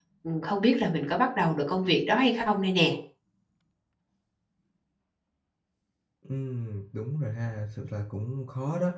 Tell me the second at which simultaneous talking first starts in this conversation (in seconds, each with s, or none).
none